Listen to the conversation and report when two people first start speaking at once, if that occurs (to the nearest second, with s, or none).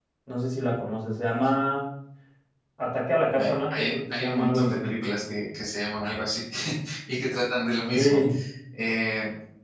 3 s